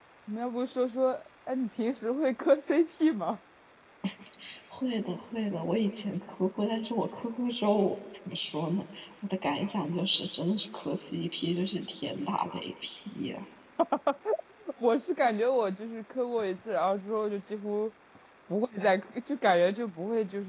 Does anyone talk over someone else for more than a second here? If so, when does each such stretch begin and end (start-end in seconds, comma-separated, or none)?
none